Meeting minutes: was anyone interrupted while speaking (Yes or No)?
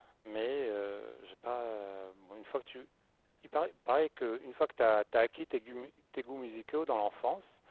No